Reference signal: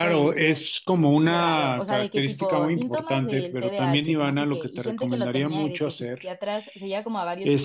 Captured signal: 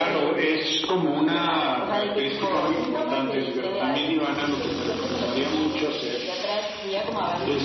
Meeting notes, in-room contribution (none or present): none